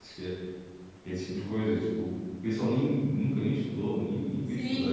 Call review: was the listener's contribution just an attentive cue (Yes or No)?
No